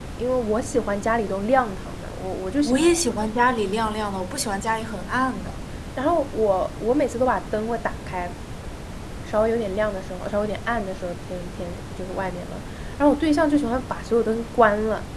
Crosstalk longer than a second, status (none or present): none